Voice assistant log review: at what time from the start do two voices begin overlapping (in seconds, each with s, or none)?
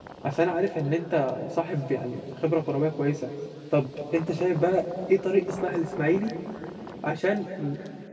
none